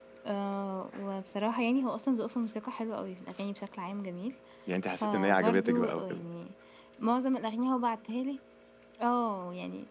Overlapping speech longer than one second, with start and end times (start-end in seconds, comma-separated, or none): 4.9-6.2